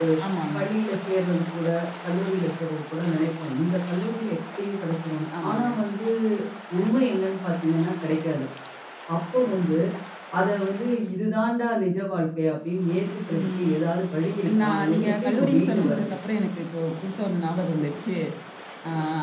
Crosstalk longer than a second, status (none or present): present